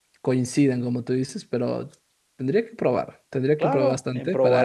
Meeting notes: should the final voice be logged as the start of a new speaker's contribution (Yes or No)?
Yes